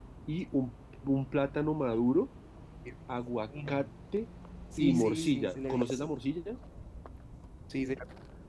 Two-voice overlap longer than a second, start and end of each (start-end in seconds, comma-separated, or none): 4.8-6.1